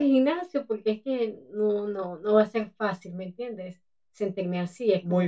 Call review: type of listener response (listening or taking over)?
taking over